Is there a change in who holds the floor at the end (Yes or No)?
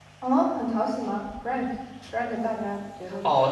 Yes